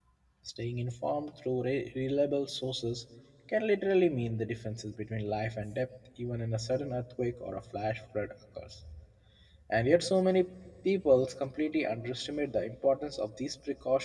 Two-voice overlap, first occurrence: none

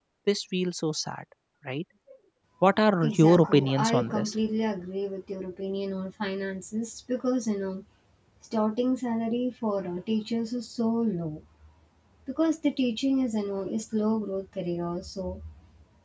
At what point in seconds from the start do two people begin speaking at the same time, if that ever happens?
3.0 s

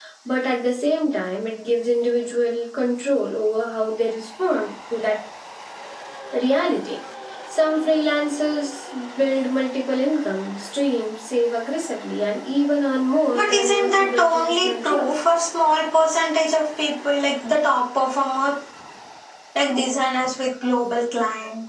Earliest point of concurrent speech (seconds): 13.3 s

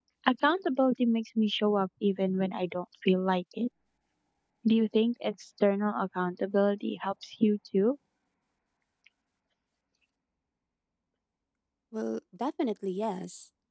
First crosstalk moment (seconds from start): none

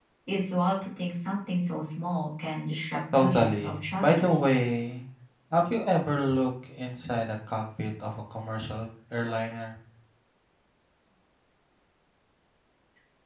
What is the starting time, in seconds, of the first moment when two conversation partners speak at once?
3.1 s

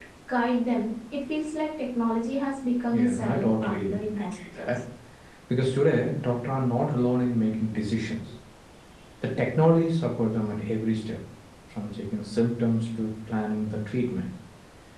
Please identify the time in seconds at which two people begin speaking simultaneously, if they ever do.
2.9 s

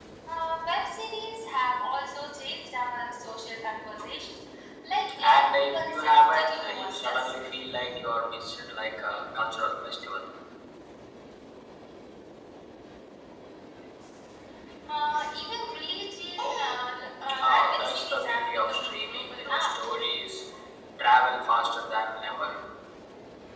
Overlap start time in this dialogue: 5.2 s

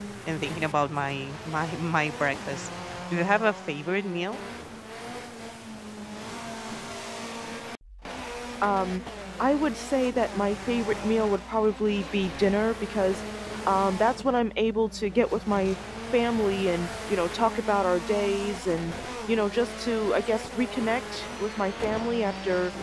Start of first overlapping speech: none

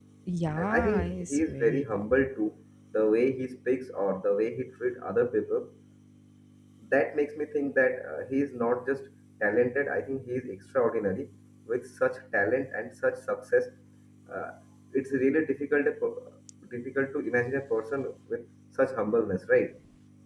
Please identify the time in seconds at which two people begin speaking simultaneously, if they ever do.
0.6 s

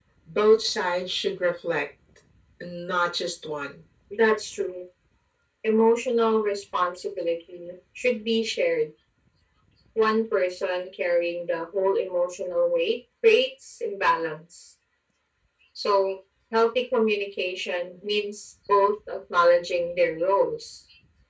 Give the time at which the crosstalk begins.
none

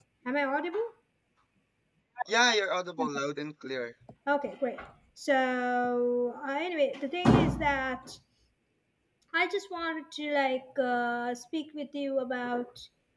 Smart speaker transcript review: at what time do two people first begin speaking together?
none

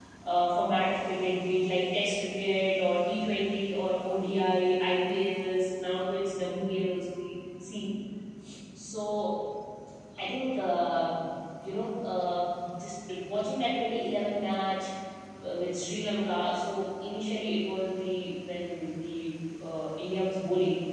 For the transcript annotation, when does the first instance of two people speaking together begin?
none

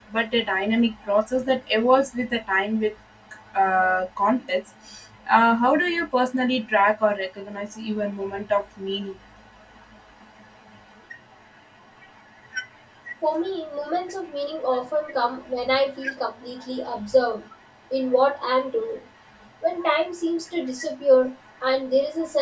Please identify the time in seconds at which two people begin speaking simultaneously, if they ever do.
none

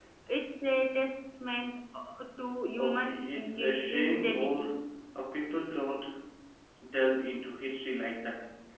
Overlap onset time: 2.8 s

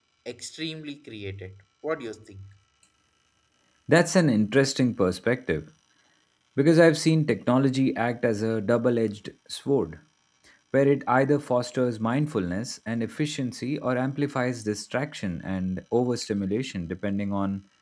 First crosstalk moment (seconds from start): none

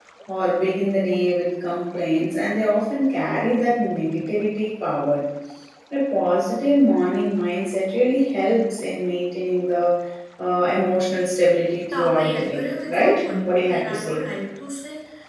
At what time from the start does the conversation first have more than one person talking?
11.9 s

